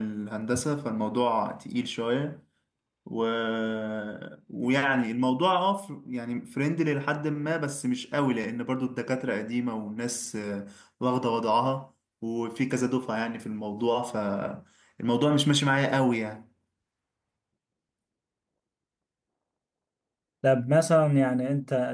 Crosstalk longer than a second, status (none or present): none